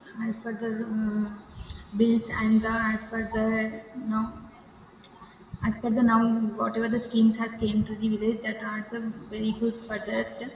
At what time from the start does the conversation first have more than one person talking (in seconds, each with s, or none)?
none